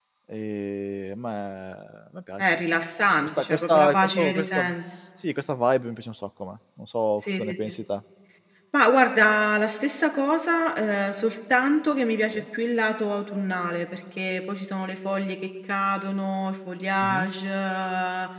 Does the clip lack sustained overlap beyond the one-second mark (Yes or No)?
No